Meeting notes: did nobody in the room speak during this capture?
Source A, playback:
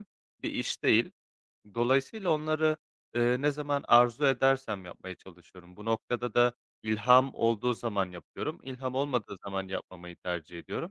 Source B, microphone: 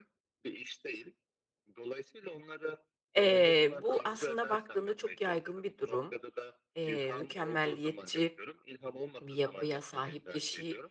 No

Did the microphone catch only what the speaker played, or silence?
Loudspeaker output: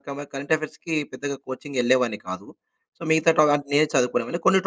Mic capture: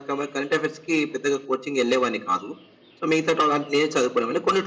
Yes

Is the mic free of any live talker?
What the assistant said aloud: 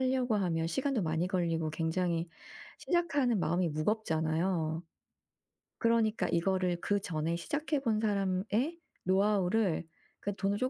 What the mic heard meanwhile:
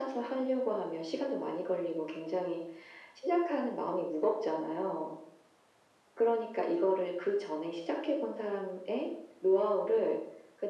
Yes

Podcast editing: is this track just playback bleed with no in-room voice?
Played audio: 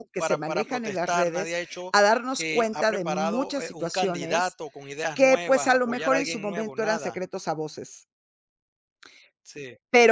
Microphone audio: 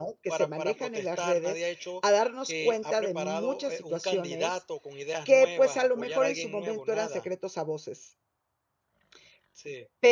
Yes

